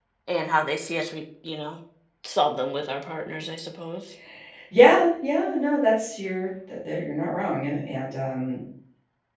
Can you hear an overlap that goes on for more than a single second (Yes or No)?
No